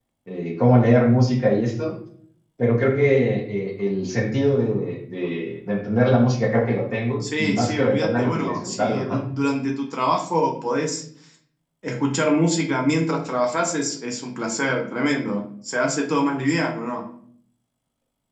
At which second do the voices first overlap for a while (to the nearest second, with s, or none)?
7 s